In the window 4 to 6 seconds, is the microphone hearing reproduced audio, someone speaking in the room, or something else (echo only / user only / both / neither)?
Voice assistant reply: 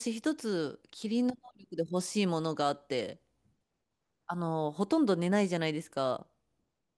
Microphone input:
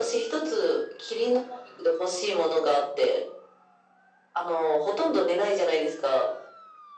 echo only